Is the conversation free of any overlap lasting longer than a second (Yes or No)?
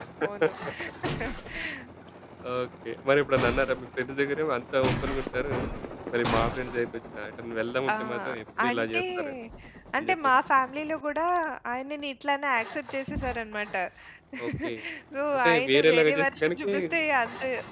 No